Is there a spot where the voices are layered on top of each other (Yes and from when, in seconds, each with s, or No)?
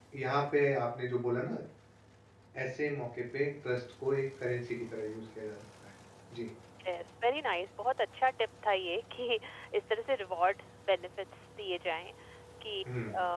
No